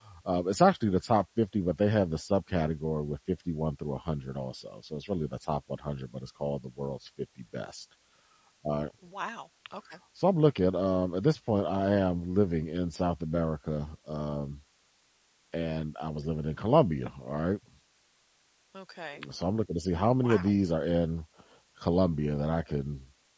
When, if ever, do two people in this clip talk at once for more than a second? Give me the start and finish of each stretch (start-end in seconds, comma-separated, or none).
none